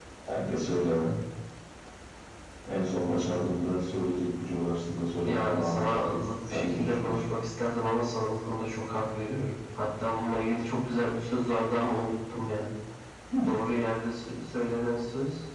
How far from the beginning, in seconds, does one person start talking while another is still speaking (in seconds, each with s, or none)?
5.2 s